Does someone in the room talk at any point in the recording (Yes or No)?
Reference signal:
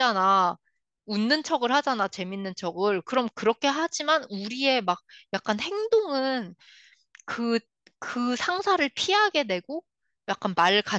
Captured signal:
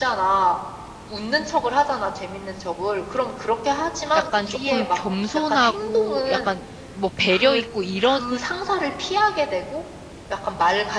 Yes